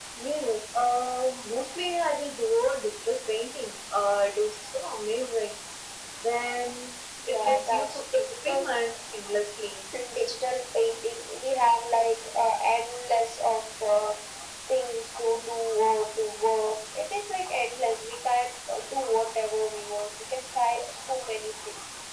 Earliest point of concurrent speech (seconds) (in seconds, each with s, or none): 7.3 s